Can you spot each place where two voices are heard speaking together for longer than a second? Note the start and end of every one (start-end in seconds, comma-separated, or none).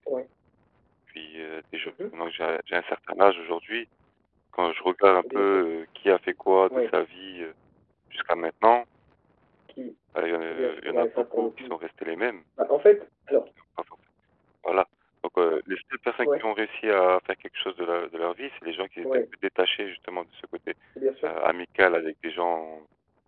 10.5-11.8